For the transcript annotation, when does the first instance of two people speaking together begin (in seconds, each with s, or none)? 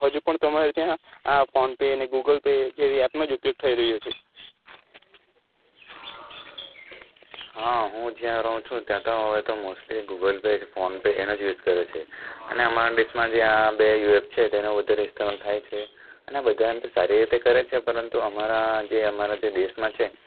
none